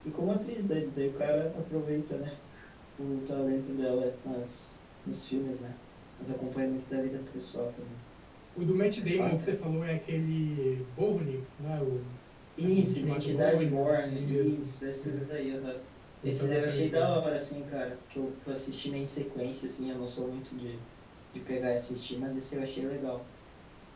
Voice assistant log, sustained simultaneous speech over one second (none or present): present